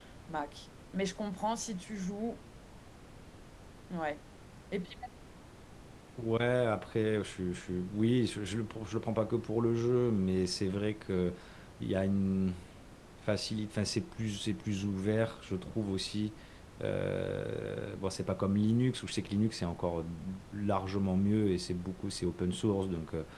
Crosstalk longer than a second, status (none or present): none